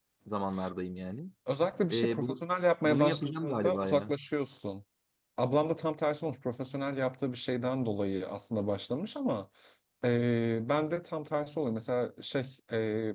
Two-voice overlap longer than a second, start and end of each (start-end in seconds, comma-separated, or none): 2.8-4.1